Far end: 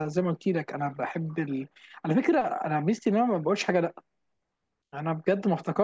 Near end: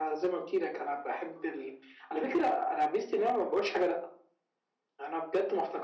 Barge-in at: none

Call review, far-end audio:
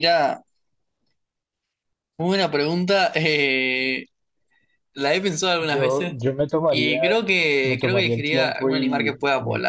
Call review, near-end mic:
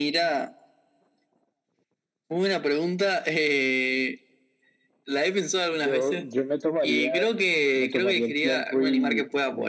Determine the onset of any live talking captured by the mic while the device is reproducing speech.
none

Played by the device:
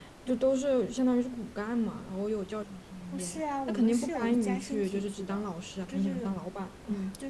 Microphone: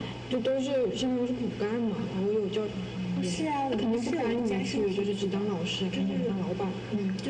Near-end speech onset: none

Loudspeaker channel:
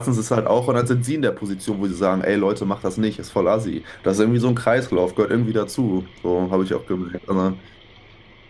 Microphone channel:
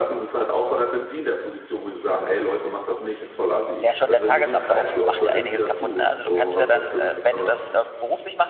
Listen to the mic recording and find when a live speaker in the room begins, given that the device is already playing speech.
3.8 s

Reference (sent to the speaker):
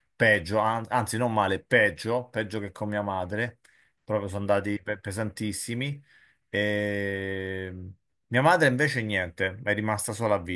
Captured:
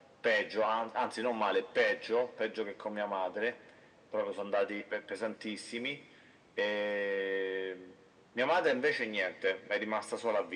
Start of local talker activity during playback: none

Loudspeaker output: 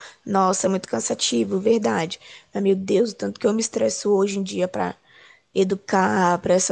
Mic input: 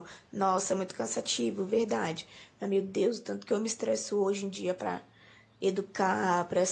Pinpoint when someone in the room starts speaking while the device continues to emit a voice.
none

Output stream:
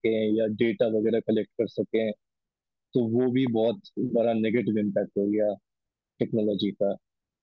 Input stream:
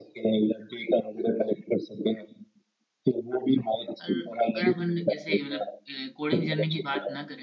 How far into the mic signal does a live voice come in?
4.0 s

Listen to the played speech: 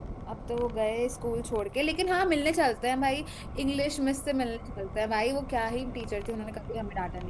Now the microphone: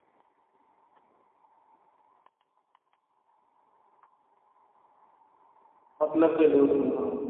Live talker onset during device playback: 6.0 s

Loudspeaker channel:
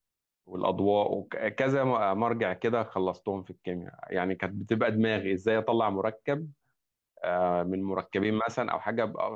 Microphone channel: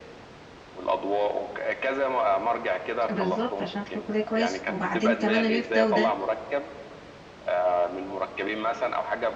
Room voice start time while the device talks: 3.1 s

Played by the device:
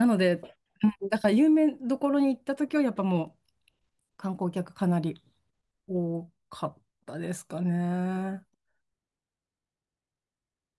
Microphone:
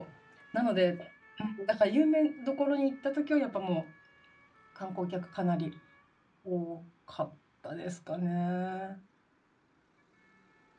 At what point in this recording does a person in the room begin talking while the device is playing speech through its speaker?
none

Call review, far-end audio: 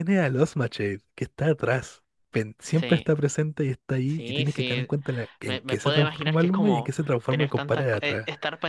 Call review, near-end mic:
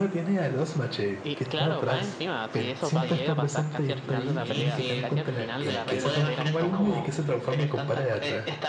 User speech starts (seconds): 1.2 s

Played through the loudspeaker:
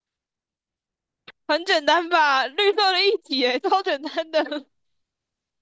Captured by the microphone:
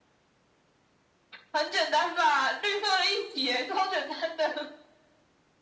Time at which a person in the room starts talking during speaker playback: none

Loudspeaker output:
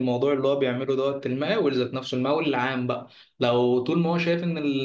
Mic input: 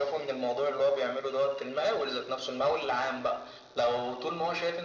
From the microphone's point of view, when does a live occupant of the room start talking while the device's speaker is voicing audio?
none

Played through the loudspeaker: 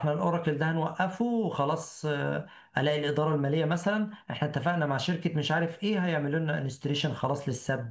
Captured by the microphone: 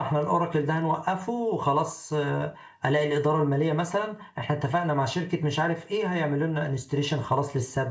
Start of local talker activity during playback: none

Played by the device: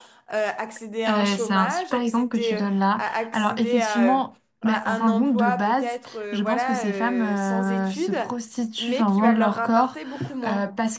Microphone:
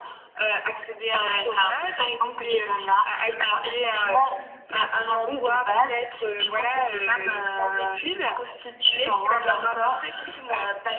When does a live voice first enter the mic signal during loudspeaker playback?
none

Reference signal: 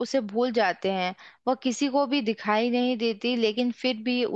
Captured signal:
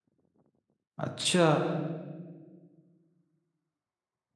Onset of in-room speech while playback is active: 1.0 s

